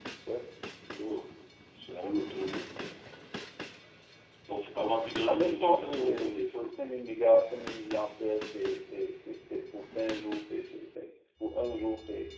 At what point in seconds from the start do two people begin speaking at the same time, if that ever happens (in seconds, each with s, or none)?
5.3 s